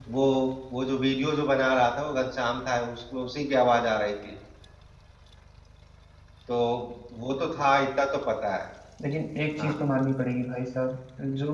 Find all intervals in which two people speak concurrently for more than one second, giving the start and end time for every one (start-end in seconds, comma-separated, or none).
none